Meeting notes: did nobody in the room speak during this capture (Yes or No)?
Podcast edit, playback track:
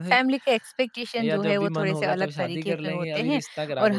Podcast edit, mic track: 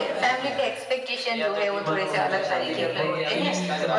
No